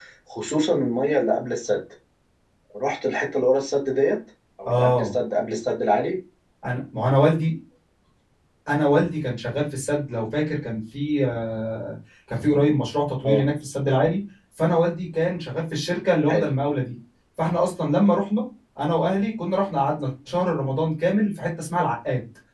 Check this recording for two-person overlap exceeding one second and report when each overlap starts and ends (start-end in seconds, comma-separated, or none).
none